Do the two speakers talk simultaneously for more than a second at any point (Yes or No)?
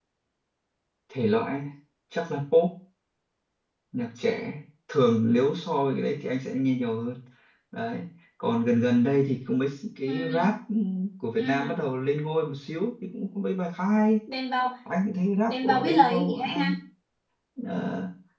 Yes